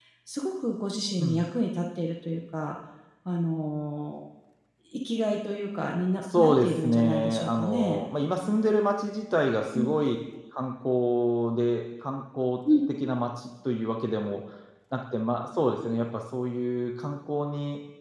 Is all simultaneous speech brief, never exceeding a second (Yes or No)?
No